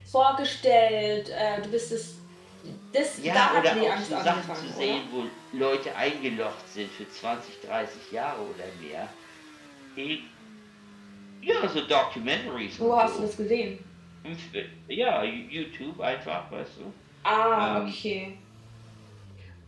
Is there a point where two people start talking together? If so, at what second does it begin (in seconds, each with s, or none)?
3.2 s